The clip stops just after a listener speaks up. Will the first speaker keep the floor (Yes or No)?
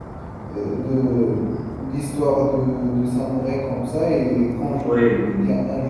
Yes